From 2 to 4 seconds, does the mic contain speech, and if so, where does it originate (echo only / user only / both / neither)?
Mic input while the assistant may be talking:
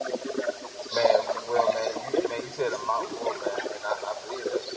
both